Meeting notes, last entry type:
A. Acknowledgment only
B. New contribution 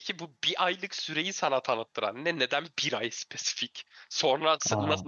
A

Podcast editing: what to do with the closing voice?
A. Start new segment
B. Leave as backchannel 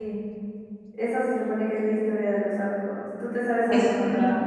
A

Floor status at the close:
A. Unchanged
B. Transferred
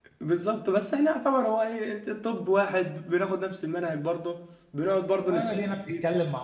B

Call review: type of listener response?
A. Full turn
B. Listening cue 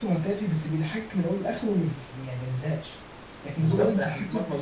A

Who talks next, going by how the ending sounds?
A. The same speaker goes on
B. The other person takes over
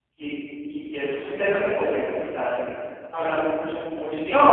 B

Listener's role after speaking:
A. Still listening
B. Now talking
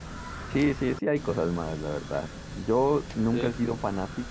A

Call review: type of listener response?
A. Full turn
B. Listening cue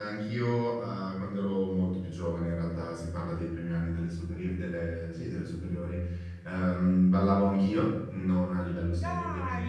B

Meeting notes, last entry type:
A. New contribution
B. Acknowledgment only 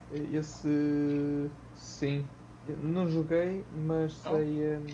B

